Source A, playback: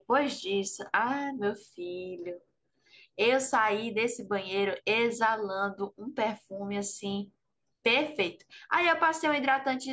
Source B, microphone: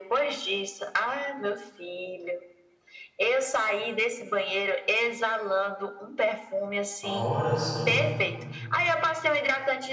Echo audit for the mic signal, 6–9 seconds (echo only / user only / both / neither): both